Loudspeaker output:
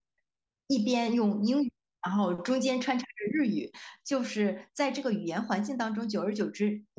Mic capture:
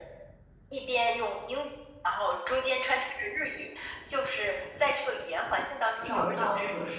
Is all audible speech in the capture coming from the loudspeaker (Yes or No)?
No